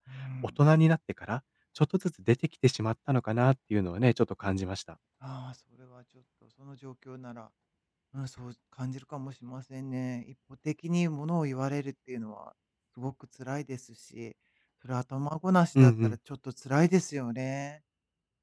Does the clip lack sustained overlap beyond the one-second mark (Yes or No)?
Yes